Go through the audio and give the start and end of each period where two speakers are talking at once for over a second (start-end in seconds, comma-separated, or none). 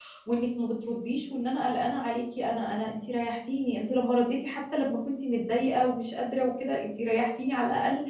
none